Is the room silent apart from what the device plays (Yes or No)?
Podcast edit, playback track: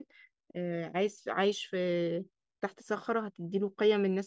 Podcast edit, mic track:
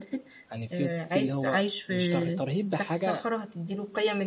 No